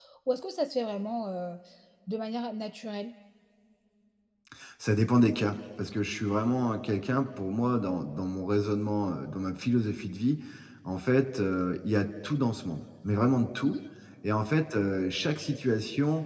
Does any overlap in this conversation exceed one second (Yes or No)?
No